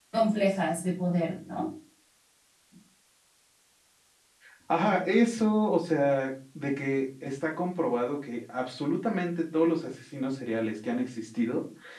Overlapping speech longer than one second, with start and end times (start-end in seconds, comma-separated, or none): none